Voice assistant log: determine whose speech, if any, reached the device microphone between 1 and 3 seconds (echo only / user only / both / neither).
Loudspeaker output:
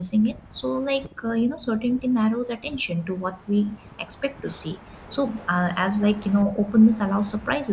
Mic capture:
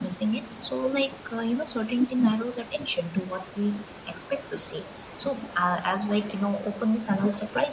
echo only